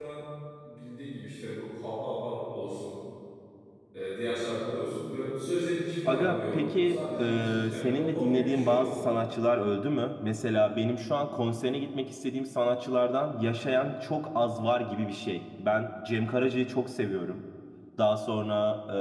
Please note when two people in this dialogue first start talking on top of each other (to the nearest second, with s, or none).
6 s